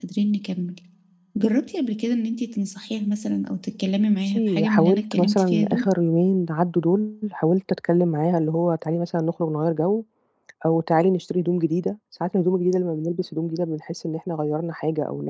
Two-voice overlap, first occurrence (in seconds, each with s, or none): 4.2 s